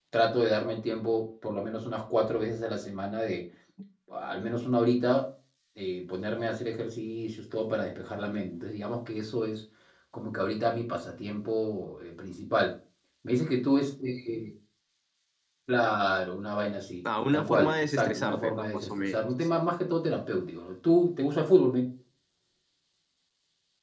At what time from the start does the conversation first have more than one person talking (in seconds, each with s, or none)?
17.3 s